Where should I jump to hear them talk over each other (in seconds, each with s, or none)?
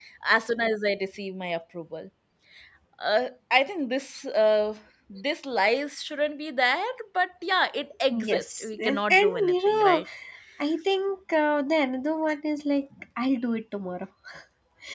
8.1 s